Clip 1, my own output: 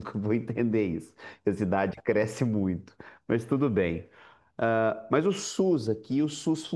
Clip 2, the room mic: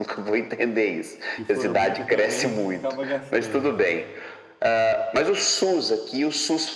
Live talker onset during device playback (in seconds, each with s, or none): 1.3 s